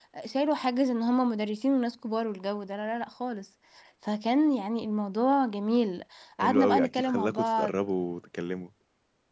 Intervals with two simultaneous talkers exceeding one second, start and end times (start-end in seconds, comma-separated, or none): 6.4-7.7